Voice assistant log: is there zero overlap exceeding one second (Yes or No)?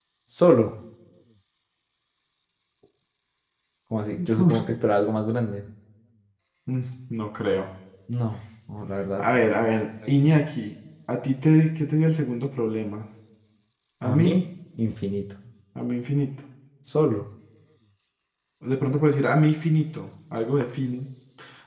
Yes